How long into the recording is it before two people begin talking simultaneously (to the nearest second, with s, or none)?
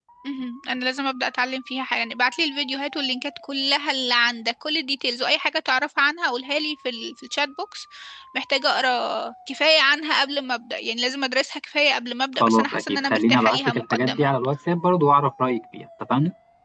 12 s